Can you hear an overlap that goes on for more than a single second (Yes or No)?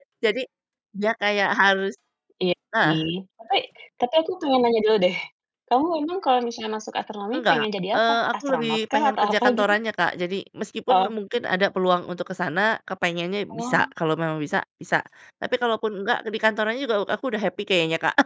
Yes